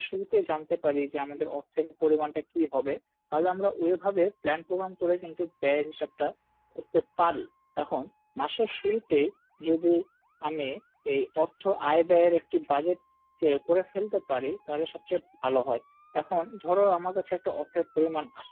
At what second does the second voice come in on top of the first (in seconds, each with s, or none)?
none